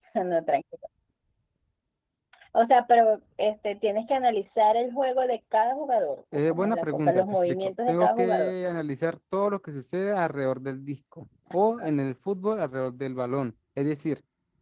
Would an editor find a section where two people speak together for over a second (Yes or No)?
Yes